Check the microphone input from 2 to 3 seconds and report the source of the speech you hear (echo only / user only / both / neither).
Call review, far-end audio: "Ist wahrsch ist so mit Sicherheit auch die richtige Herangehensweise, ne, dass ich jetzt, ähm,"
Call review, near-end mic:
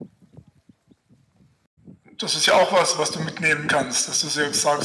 user only